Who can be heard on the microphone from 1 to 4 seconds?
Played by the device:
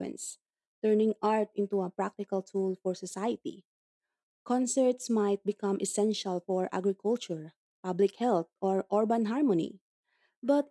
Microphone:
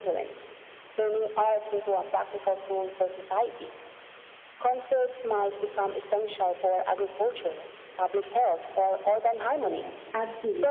echo only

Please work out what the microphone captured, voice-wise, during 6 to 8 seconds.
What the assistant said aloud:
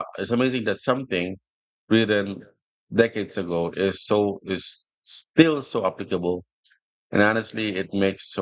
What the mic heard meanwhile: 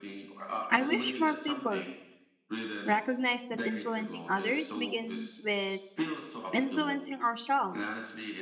both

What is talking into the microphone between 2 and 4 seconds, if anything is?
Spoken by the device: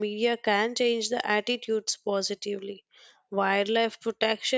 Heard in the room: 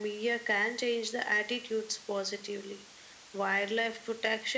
echo only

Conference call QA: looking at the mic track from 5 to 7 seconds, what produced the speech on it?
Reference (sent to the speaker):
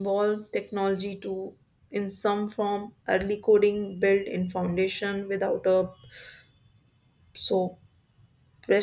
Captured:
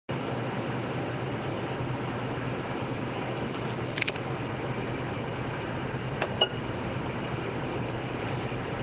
neither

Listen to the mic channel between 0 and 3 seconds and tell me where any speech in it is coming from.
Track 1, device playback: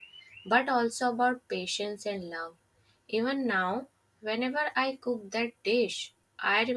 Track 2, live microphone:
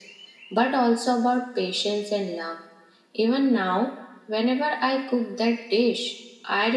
echo only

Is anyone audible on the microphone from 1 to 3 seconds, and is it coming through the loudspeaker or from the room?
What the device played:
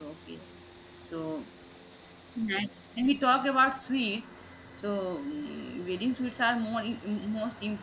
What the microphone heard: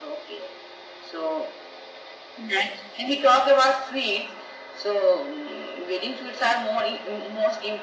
echo only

